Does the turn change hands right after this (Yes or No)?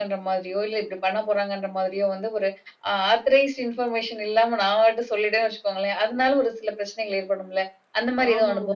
Yes